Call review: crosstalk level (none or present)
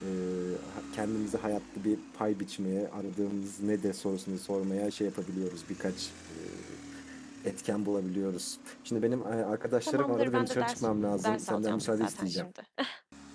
present